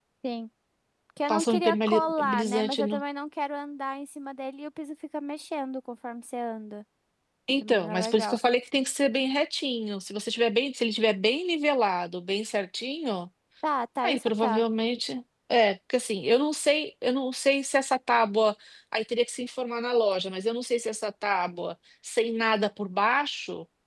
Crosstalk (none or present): present